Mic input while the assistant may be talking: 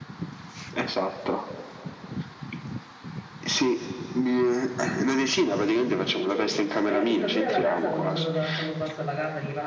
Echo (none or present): present